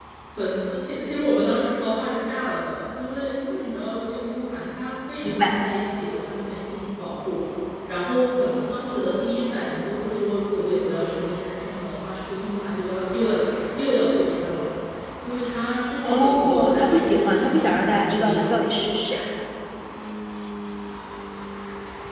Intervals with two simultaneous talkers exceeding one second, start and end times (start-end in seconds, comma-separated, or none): 16.0-18.4